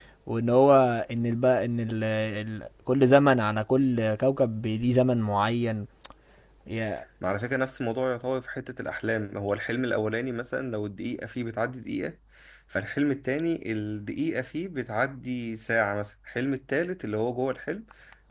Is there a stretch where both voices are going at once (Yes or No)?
No